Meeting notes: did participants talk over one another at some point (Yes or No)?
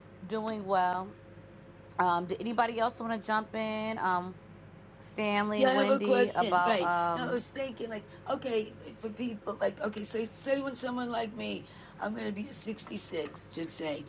Yes